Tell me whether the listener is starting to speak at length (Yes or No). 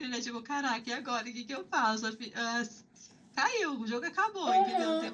Yes